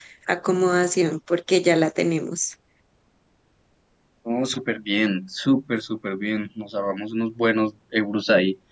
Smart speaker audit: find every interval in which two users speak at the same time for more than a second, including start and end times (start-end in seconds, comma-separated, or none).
none